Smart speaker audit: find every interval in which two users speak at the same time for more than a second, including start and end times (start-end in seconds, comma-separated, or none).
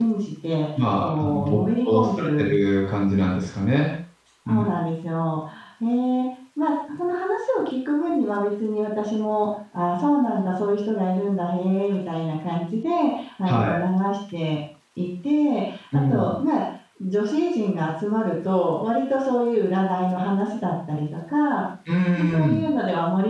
1.0-2.4